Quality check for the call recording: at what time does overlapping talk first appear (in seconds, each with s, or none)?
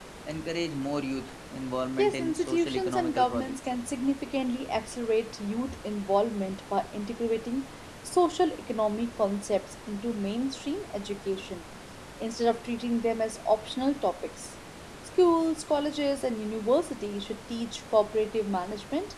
2.0 s